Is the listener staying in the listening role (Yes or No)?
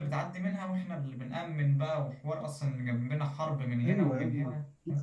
No